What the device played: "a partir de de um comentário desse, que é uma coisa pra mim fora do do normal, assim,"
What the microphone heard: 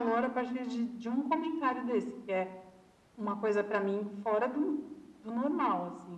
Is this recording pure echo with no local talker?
Yes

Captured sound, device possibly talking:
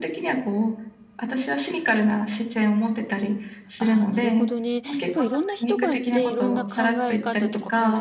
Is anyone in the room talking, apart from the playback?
Yes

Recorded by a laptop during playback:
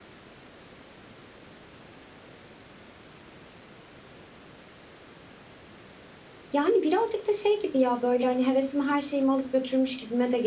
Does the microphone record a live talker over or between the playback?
Yes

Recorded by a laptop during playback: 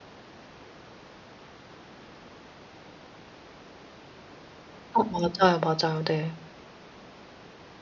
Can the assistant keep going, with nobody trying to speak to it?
No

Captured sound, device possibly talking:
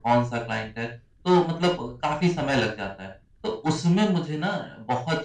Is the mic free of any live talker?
Yes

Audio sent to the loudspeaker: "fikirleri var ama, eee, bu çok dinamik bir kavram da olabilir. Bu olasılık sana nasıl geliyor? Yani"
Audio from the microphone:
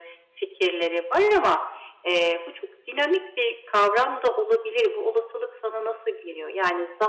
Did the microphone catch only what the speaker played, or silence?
Yes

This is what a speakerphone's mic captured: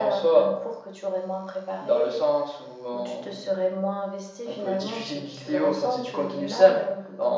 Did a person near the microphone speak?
No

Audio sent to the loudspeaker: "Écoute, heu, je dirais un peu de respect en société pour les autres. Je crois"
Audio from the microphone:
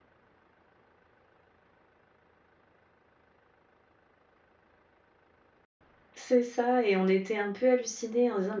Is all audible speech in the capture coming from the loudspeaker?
No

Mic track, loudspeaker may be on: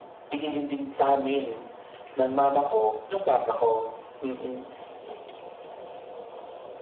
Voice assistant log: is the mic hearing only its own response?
Yes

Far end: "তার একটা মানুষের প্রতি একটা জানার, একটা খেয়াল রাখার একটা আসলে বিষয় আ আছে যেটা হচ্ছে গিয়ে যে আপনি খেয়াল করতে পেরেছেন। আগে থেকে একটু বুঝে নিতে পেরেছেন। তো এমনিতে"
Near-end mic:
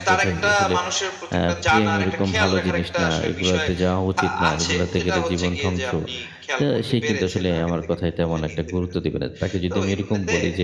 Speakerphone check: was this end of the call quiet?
No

